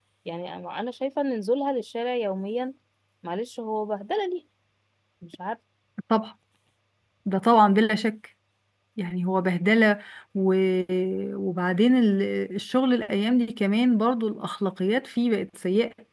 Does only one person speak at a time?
Yes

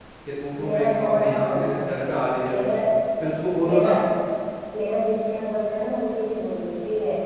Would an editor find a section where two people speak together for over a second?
Yes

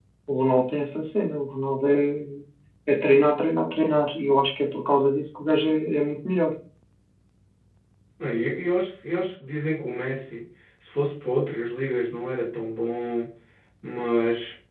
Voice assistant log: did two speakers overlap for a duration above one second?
No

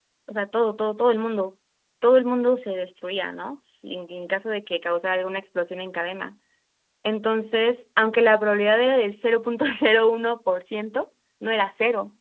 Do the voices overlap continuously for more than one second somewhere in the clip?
No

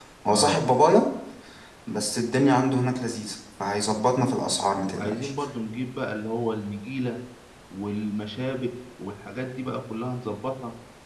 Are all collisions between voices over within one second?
Yes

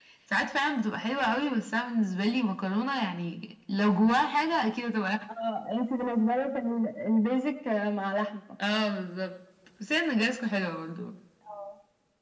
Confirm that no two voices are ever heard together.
Yes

